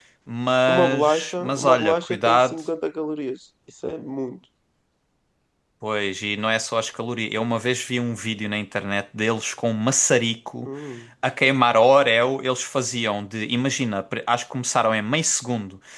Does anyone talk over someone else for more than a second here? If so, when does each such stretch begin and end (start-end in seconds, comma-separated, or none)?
0.7-2.6